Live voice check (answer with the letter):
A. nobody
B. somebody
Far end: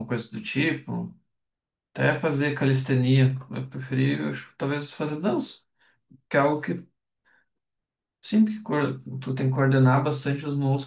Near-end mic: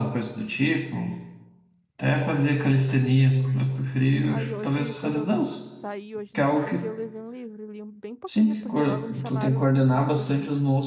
B